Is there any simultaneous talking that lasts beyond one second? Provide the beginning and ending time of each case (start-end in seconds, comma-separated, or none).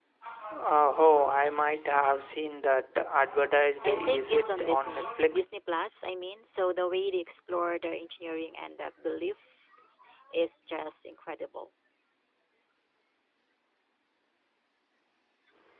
3.8-5.4